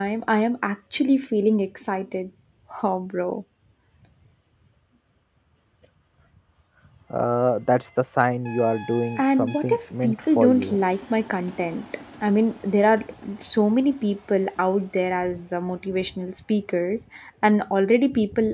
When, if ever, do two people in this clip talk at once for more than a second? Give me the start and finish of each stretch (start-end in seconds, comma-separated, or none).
9.2-10.8